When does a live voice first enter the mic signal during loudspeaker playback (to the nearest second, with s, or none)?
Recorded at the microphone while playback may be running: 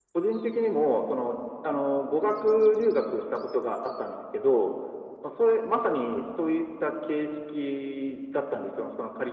none